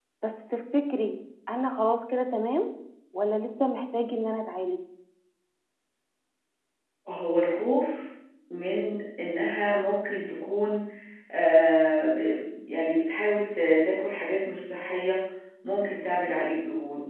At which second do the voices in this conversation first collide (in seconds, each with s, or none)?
none